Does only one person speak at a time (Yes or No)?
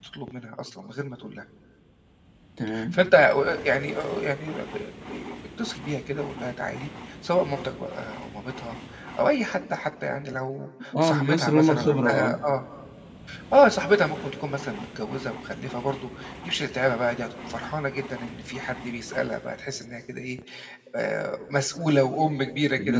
No